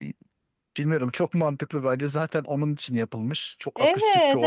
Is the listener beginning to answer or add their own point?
Yes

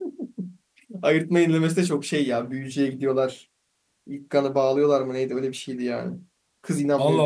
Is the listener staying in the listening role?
No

